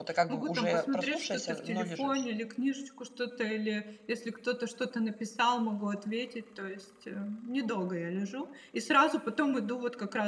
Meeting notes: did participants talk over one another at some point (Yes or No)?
Yes